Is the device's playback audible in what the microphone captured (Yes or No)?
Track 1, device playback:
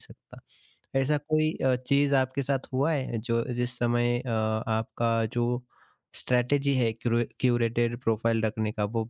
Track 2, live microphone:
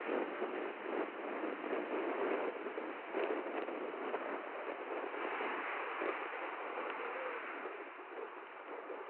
No